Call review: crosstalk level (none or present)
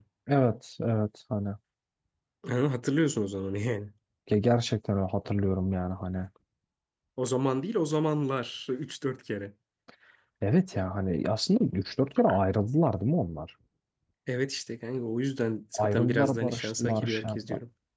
present